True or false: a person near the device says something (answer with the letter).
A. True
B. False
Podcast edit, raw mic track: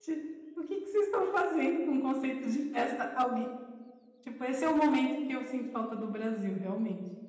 A